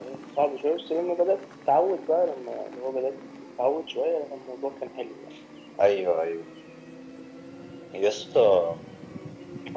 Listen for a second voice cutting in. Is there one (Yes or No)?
No